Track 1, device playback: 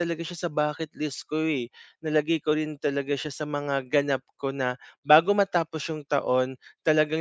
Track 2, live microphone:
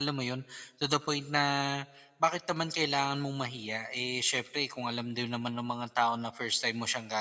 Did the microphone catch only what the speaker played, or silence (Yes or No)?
No